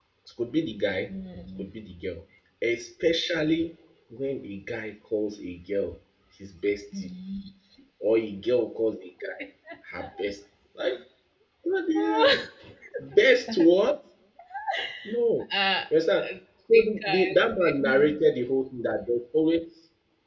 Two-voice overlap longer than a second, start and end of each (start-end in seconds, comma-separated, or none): 16.7-18.1